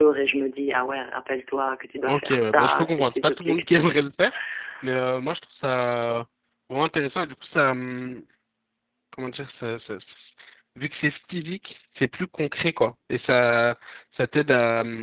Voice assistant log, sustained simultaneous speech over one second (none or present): present